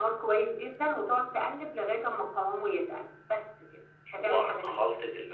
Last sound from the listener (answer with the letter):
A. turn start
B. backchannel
A